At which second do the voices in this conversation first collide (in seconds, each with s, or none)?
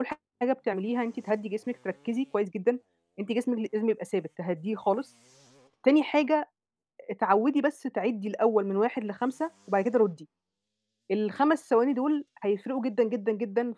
none